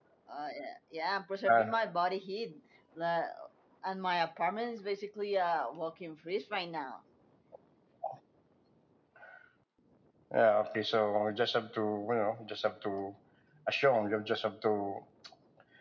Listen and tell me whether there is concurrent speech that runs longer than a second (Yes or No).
No